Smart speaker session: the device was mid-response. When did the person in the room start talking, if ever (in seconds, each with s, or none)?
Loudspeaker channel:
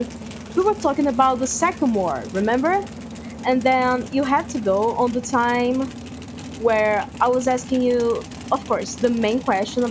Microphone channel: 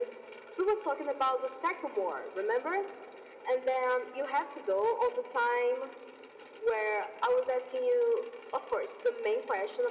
none